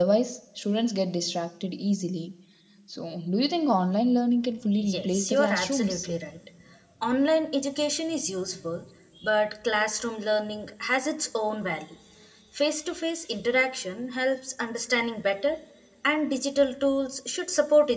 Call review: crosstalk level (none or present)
present